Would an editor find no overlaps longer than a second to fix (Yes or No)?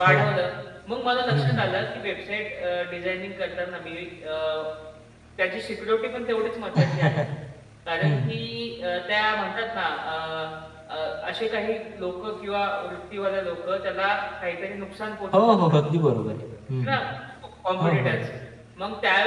Yes